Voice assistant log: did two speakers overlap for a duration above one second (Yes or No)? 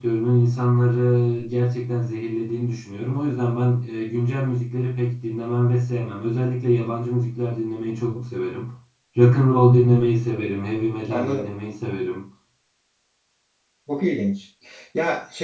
No